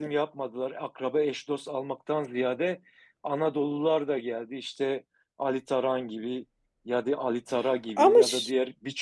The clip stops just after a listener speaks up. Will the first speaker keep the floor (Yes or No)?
Yes